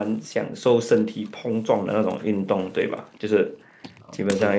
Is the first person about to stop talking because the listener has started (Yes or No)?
No